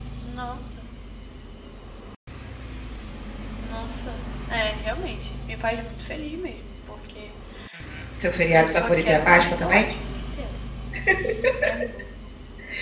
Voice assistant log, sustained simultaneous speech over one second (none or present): present